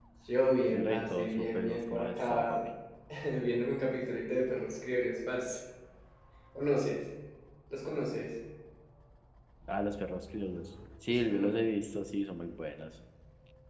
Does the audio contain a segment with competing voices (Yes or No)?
Yes